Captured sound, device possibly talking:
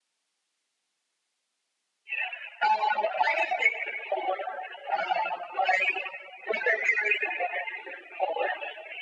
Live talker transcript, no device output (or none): none